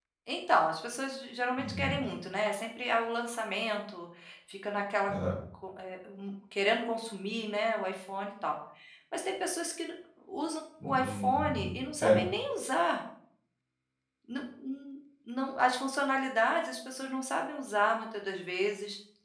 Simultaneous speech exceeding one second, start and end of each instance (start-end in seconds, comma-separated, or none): 10.8-12.2